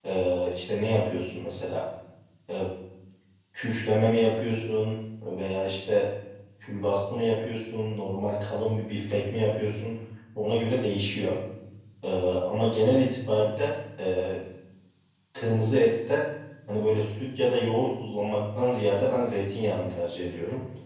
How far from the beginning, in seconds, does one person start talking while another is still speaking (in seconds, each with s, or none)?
none